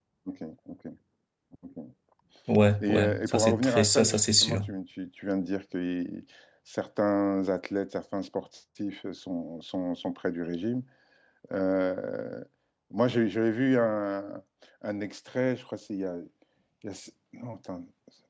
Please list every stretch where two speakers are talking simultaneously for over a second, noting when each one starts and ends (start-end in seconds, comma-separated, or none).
2.8-4.6